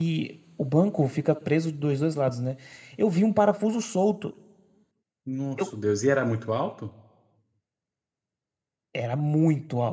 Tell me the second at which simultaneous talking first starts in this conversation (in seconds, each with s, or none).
none